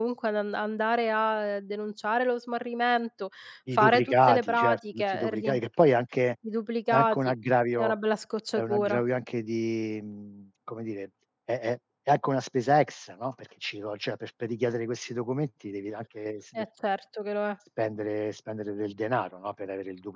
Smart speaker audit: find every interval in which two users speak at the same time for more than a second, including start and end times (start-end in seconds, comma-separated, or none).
3.8-5.6